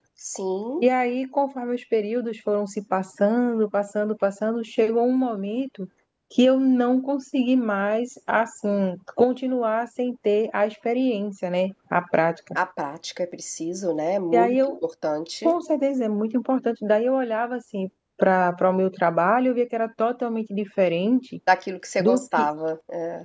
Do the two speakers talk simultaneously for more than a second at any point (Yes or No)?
No